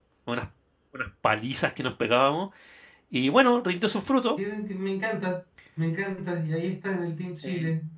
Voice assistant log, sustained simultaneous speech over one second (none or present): none